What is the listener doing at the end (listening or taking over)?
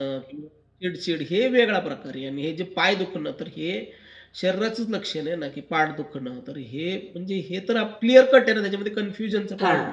taking over